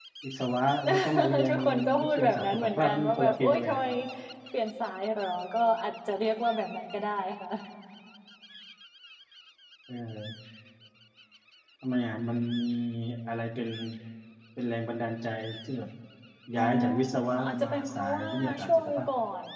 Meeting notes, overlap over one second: present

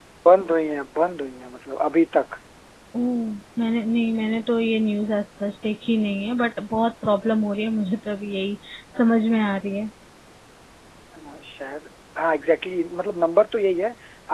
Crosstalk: none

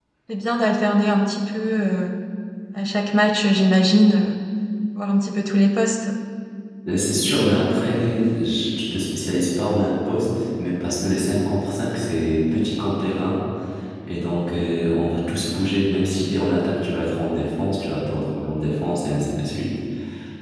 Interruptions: none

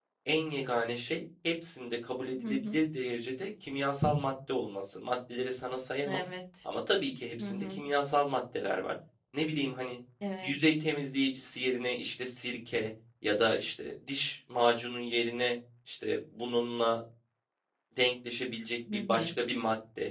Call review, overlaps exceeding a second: none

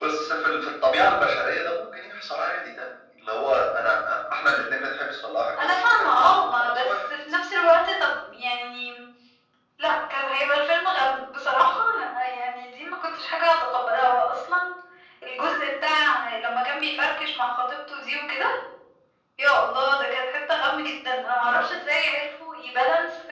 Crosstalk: present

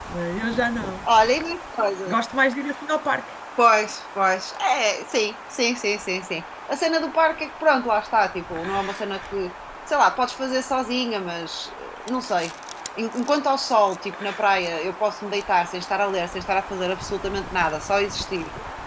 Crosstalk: none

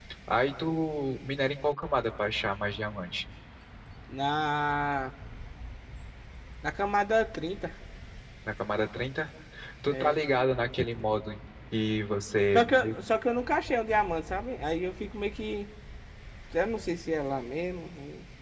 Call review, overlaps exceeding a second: none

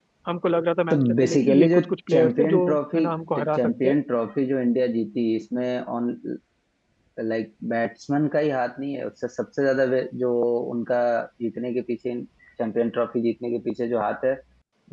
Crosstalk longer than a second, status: present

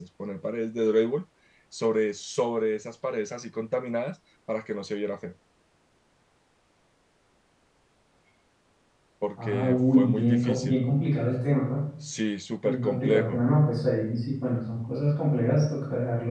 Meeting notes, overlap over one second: present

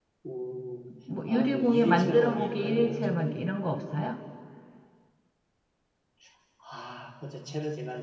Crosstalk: present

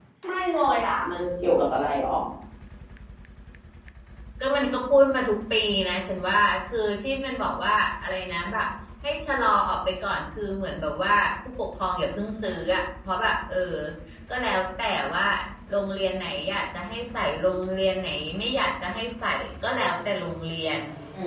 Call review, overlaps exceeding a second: none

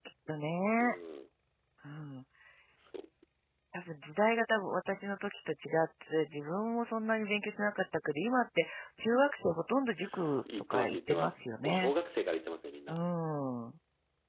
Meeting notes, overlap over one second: present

